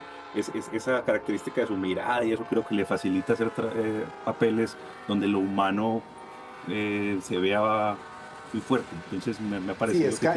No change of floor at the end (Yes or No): No